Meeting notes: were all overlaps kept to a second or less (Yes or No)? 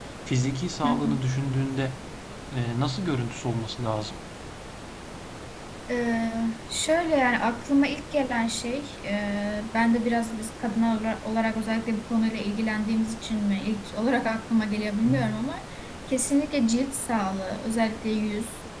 Yes